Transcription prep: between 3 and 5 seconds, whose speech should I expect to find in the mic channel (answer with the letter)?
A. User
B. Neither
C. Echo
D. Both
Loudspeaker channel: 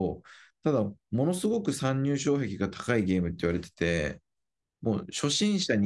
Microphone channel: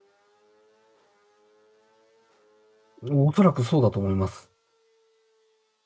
A